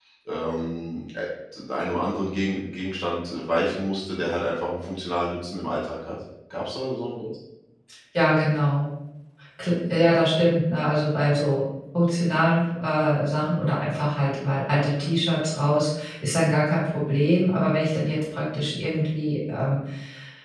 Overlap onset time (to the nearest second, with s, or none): none